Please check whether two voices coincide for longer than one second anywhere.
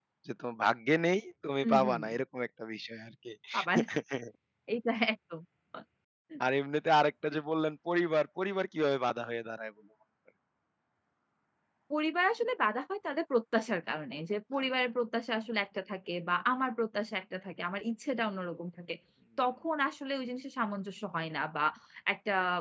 No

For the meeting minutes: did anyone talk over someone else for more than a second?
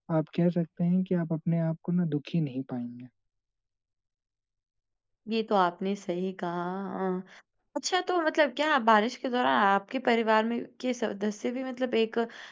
No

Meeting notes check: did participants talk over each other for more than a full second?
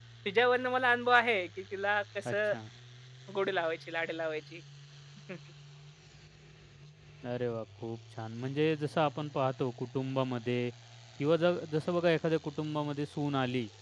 No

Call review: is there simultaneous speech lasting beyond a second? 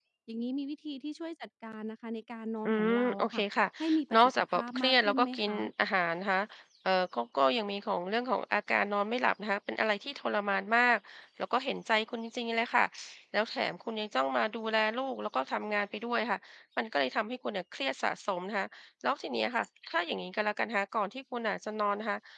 Yes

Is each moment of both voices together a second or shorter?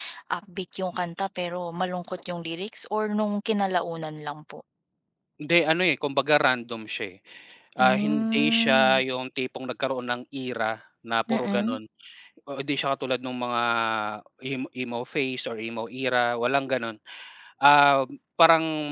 No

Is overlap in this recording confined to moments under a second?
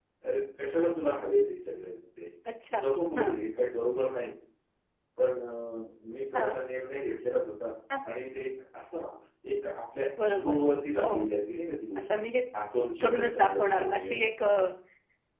No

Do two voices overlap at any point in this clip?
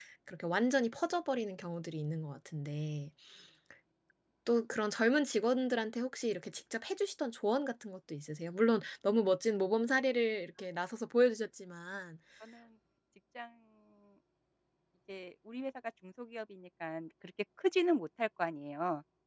No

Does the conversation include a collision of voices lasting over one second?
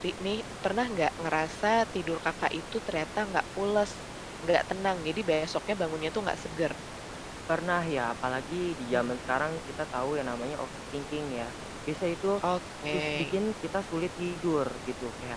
No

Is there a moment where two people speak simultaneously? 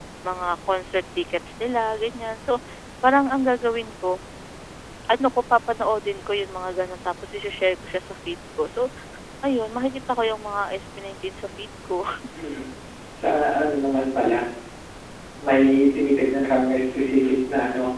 No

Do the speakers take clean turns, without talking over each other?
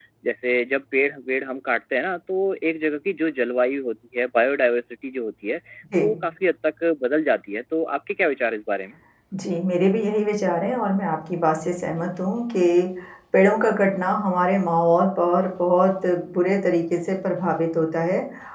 Yes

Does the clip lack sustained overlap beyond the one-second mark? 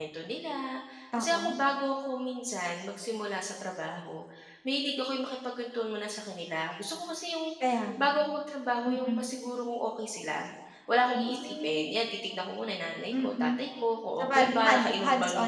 No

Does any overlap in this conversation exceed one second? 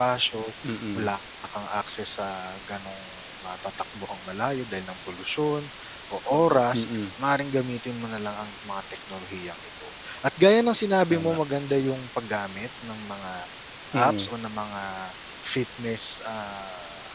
No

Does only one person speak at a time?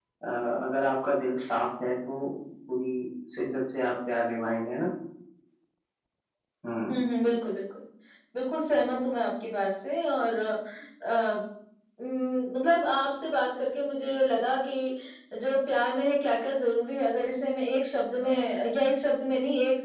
Yes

